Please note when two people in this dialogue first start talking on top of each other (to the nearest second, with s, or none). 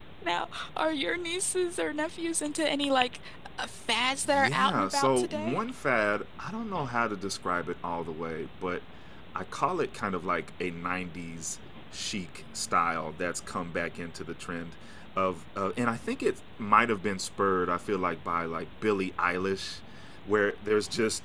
4 s